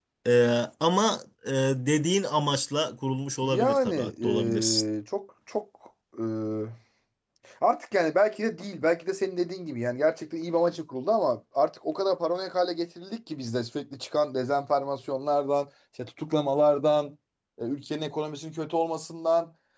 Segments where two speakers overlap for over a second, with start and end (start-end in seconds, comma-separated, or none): 3.4-4.8